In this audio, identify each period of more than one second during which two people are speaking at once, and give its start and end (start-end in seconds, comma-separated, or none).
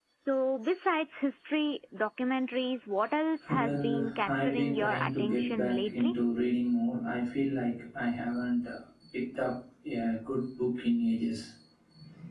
3.5-6.1